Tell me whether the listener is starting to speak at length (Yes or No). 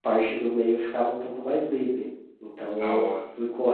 No